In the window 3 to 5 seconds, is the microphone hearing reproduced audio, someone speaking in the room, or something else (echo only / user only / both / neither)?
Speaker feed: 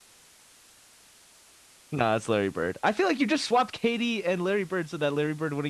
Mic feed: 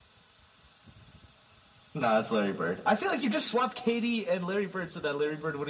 echo only